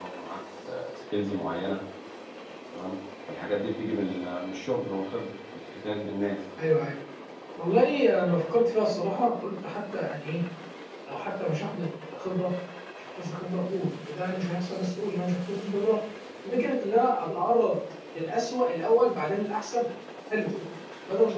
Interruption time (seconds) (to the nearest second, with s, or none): none